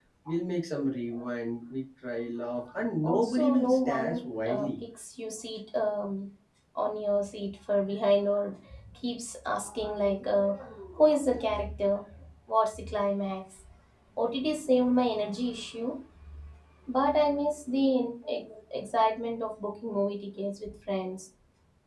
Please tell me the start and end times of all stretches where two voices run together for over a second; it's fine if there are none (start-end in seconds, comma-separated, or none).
3.0-4.7